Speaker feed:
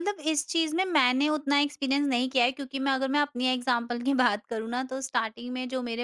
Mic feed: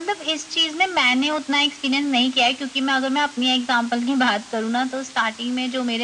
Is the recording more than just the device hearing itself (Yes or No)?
No